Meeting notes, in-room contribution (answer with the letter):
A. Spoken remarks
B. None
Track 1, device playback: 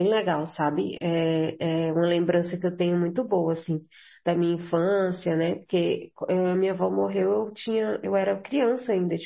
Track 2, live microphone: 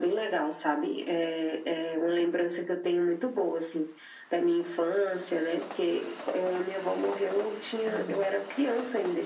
A